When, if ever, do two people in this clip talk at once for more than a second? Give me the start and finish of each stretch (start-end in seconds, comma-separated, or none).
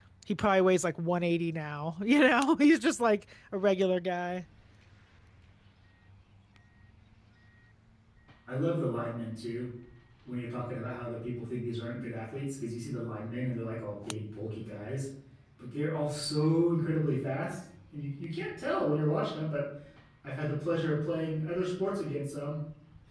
none